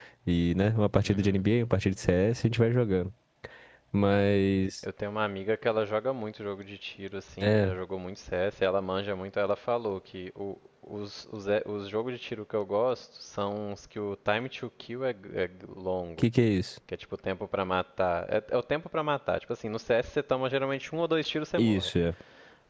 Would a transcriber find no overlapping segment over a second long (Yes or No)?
Yes